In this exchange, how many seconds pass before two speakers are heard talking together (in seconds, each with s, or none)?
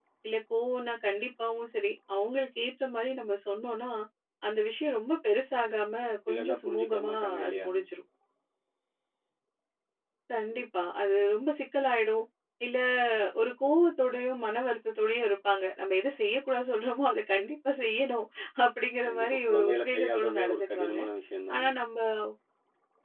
6.3 s